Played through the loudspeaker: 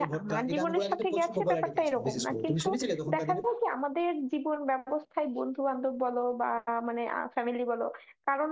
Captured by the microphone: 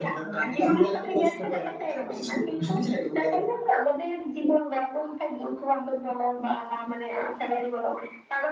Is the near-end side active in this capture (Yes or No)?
No